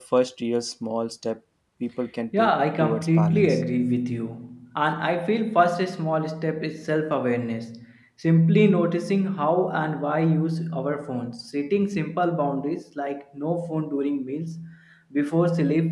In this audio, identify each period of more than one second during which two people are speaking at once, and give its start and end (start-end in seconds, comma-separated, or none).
2.4-3.6